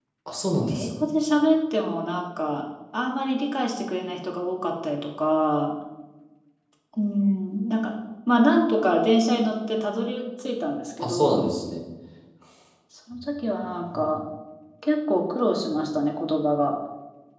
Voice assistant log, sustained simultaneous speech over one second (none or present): none